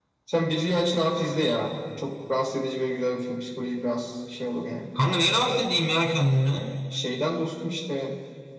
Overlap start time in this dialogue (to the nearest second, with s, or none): none